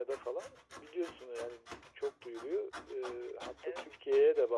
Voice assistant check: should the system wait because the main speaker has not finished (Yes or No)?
Yes